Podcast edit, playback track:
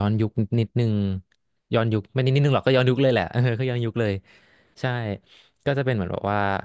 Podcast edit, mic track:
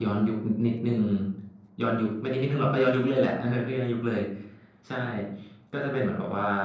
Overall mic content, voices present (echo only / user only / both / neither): echo only